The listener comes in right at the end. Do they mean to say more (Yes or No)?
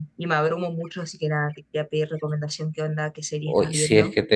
Yes